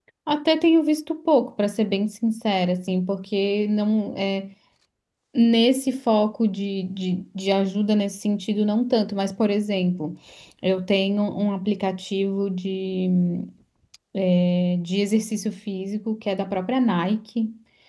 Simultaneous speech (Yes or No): No